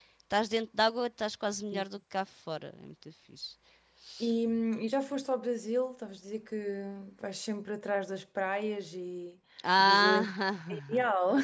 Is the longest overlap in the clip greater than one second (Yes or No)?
No